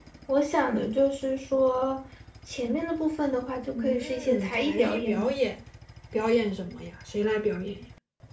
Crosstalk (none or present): present